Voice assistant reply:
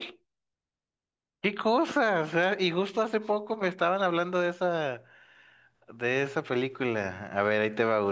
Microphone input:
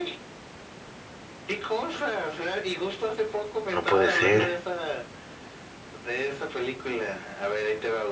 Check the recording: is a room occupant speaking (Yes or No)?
Yes